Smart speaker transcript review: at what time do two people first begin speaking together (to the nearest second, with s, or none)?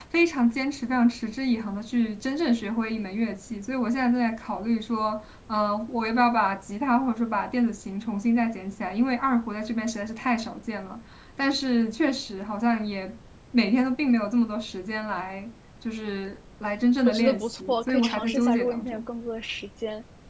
17 s